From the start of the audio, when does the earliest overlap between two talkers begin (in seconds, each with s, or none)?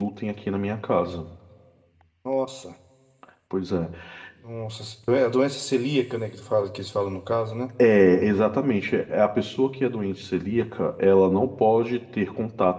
none